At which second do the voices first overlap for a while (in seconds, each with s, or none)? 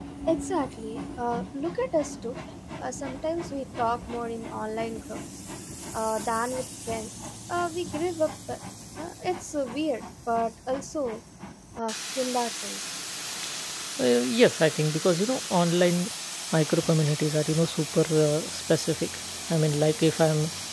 none